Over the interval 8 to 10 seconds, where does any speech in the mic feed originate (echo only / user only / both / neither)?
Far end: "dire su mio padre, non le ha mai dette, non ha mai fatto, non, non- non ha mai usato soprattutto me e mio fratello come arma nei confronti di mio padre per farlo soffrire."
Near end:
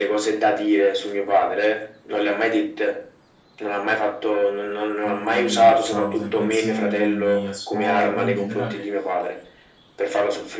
both